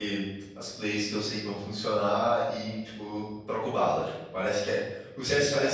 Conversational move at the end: listening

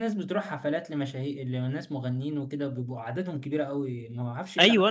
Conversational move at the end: taking over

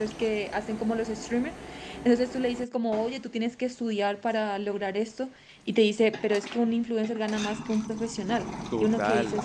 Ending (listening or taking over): taking over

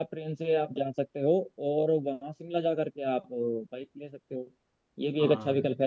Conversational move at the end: listening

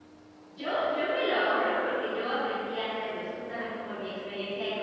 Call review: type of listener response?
listening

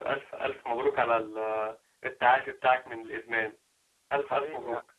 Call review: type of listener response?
taking over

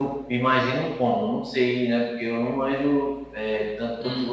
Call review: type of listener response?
listening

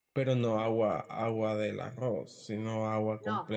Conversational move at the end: taking over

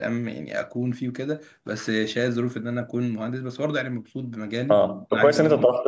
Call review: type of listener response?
taking over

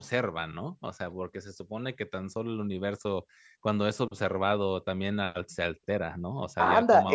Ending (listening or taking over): taking over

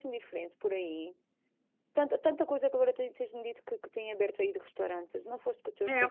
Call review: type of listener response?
taking over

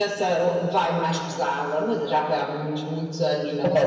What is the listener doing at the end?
taking over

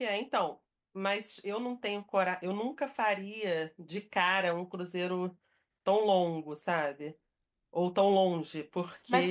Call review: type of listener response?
taking over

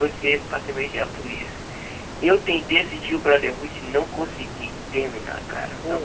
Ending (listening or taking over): listening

